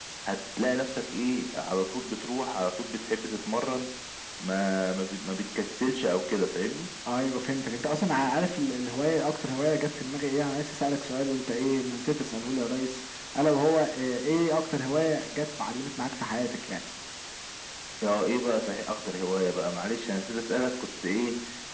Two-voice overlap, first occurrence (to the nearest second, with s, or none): none